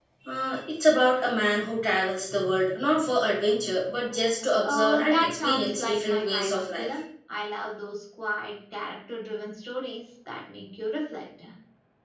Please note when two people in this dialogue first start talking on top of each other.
5 s

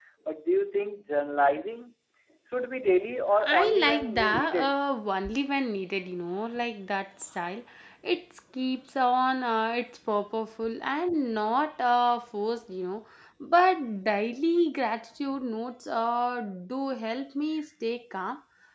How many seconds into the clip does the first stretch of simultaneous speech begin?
3 s

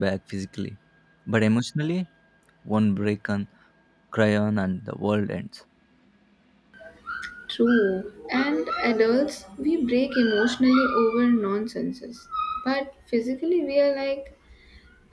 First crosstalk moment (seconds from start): none

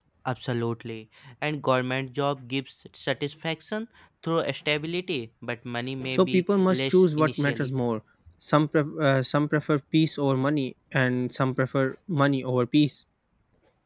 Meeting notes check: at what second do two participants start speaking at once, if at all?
6 s

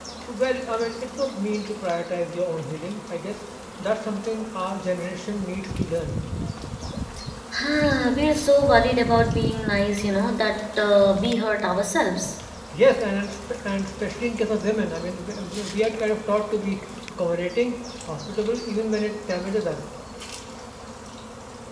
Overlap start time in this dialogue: none

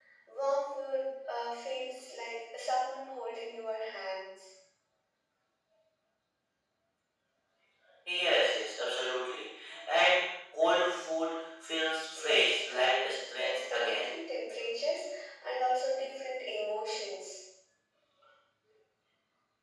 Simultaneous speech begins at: 12 s

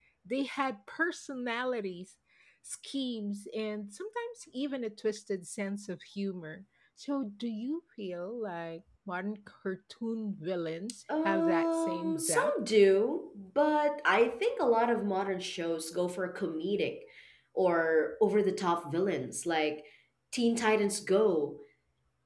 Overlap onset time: 11 s

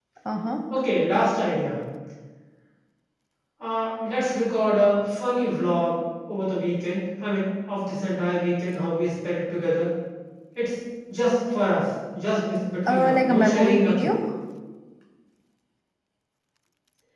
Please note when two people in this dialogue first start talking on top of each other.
13 s

